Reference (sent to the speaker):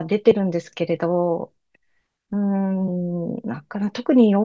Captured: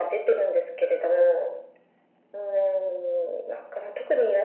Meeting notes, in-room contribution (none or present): none